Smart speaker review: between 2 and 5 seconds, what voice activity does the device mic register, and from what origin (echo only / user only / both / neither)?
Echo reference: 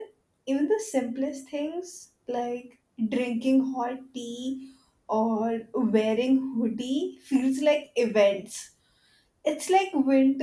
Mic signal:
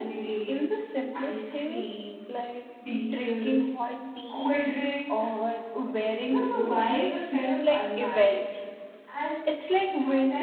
both